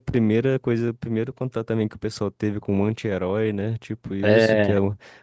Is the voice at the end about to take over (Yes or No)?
No